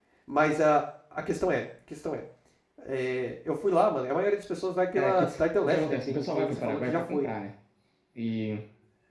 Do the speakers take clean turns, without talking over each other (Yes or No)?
No